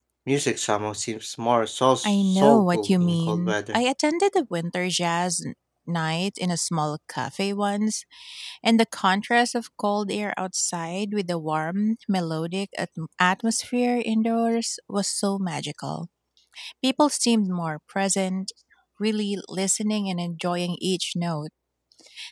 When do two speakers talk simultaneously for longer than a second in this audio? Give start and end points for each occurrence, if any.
2.0-3.8

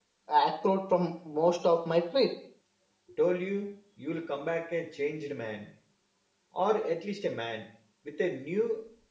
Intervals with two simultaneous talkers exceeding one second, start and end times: none

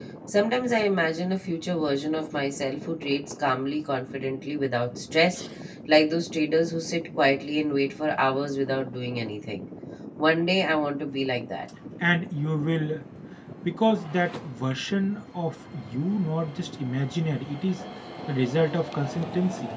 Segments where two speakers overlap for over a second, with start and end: none

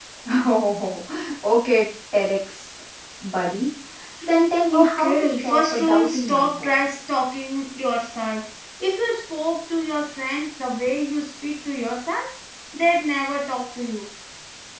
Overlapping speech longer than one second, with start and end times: 4.7-6.8

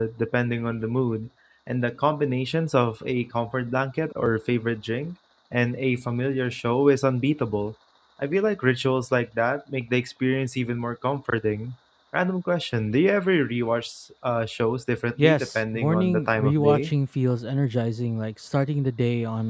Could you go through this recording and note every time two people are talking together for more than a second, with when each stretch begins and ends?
15.2-16.9

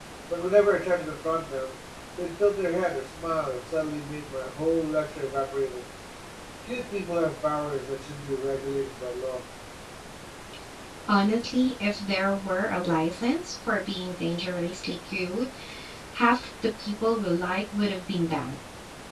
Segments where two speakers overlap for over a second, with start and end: none

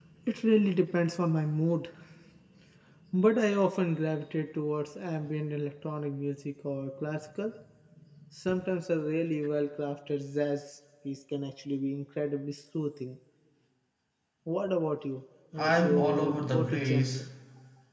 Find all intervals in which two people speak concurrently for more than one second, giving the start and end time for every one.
15.6-17.2

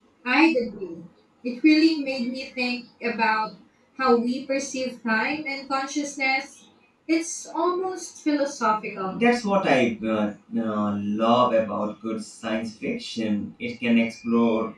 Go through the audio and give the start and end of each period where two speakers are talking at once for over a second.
none

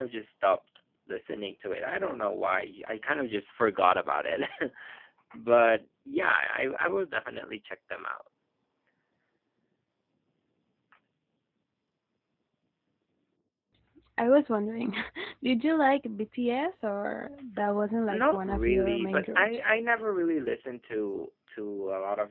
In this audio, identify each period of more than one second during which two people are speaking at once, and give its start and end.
18.1-19.7

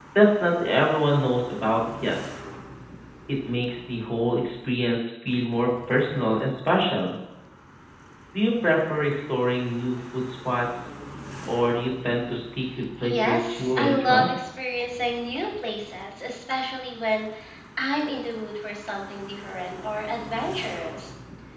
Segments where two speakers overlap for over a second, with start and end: 13.0-14.3

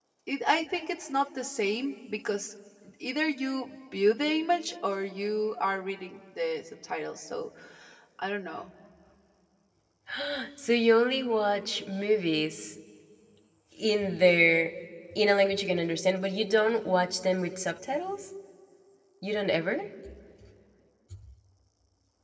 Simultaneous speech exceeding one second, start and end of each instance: none

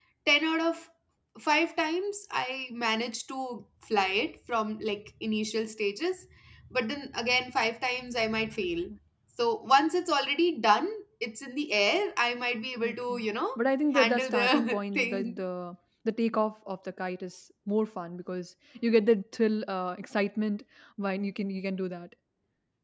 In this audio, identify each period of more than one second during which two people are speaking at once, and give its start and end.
13.9-15.4

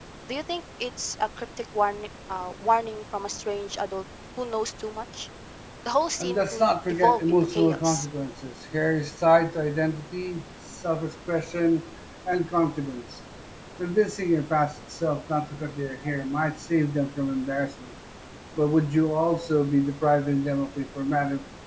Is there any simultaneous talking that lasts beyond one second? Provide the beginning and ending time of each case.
6.2-8.1

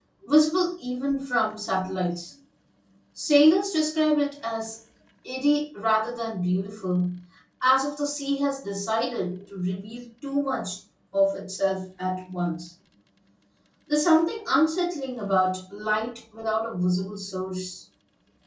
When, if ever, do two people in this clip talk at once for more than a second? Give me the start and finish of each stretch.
none

